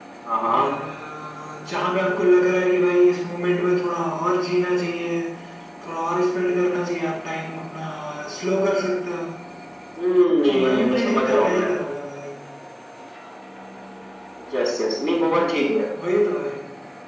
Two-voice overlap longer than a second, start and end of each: 10.5-11.7

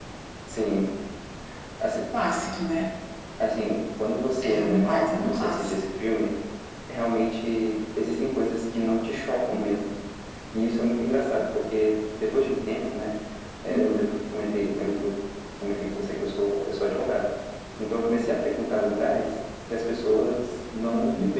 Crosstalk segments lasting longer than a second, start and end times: 4.4-5.7

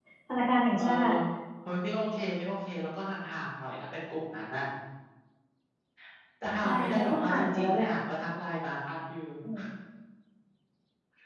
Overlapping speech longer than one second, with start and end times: 6.6-7.9

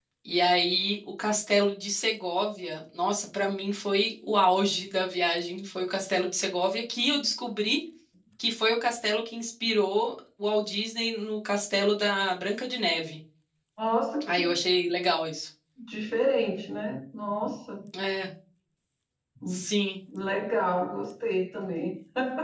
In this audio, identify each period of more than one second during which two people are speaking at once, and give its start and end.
none

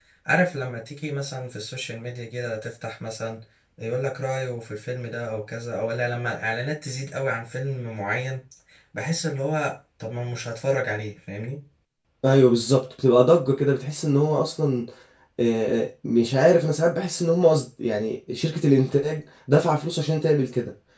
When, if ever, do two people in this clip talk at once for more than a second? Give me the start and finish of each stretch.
none

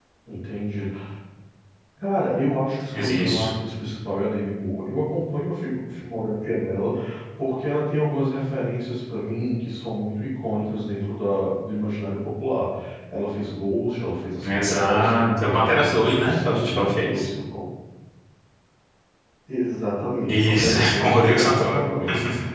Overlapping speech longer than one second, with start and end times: 14.4-17.2, 20.3-21.8

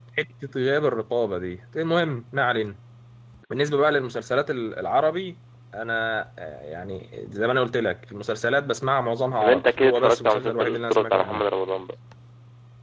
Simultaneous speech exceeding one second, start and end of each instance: 9.4-11.4

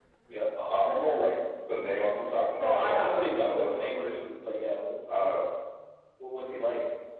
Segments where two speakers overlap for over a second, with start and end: 2.6-4.1

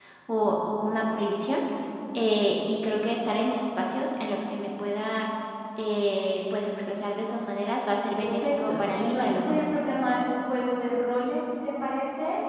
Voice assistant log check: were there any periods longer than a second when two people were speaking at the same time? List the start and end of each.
8.2-9.6

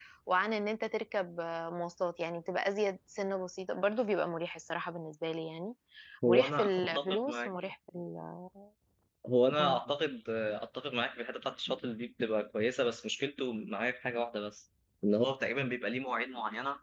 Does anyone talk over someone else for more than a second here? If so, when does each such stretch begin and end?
6.3-7.5

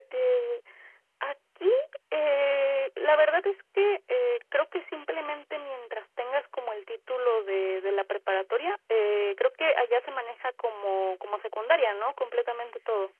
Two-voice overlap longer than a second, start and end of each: none

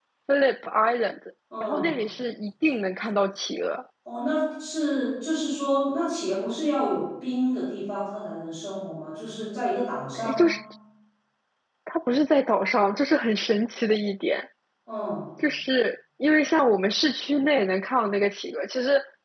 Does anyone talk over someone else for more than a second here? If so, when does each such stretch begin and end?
none

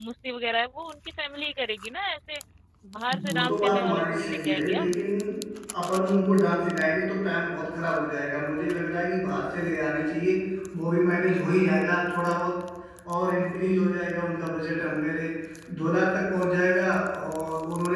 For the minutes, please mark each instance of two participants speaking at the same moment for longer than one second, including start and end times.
3.3-5.0

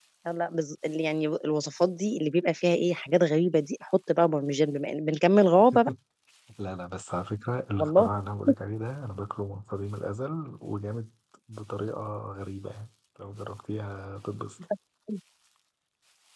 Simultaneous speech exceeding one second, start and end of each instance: none

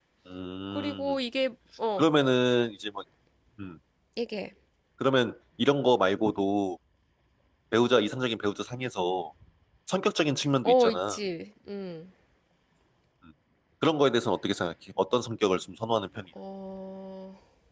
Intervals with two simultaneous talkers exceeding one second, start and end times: none

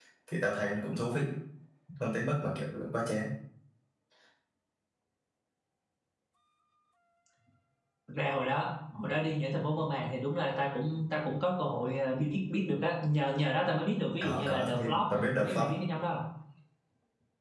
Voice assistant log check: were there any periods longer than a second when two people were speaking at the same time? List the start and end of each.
14.2-15.6

